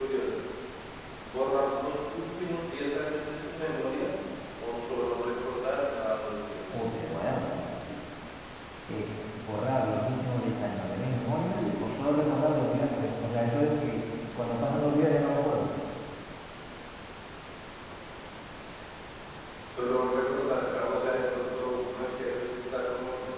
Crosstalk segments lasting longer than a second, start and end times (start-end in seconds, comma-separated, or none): none